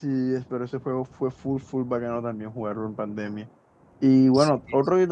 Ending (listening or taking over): listening